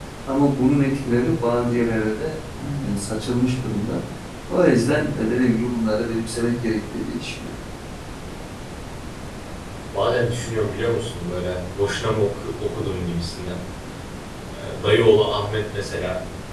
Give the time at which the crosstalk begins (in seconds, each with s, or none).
none